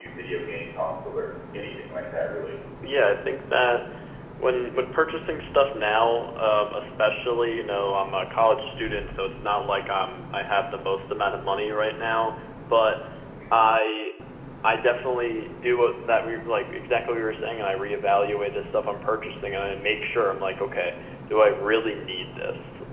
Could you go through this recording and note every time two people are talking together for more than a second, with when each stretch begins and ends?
none

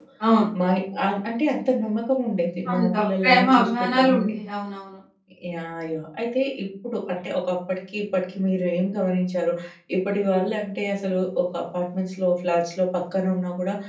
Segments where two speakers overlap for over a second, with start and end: 2.7-4.4

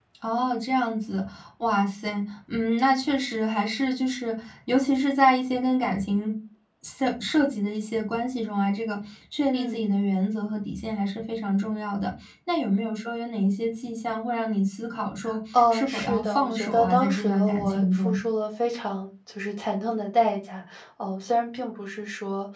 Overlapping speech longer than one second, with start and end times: 15.7-18.2

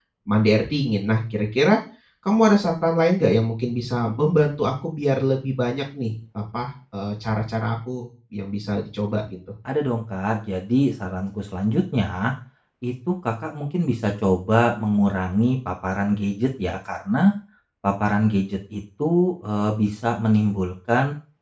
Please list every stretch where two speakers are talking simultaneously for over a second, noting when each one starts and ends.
none

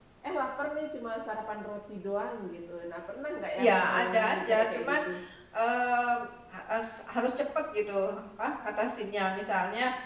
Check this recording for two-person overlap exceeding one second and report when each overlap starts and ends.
3.6-5.0

